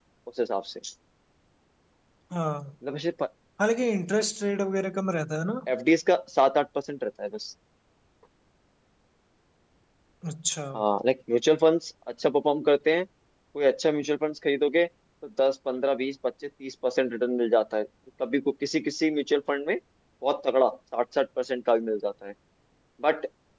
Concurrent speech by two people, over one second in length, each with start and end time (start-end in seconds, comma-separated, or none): none